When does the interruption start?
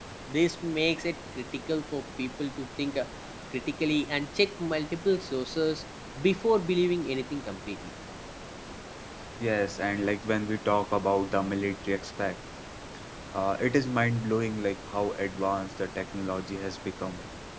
none

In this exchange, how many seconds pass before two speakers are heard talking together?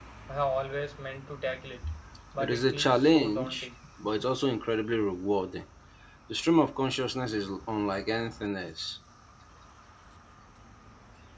2.4 s

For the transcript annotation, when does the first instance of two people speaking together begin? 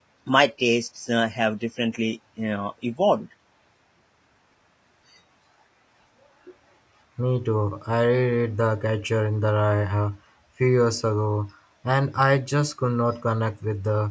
none

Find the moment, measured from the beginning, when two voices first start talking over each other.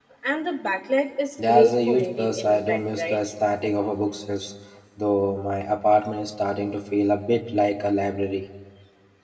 1.4 s

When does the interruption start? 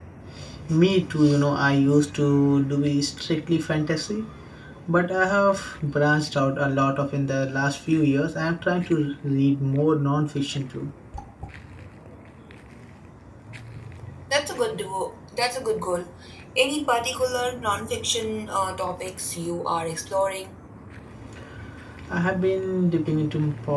none

